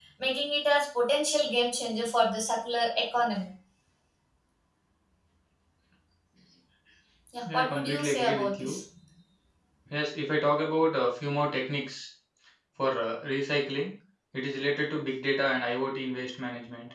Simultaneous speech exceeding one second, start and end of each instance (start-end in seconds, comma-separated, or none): 7.5-8.8